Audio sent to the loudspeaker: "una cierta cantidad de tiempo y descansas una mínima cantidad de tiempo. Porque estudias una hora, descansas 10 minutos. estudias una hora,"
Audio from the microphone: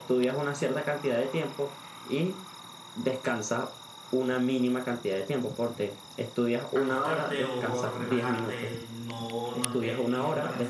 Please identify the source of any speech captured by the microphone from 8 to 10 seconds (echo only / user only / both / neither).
both